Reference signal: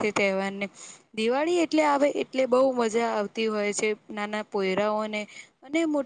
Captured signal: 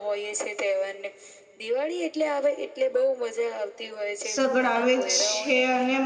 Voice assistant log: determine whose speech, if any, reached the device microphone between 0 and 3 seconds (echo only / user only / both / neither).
echo only